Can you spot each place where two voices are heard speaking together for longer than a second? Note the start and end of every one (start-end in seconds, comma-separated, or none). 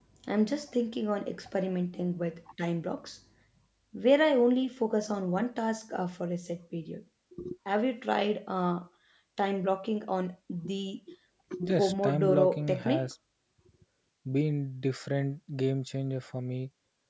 11.8-13.1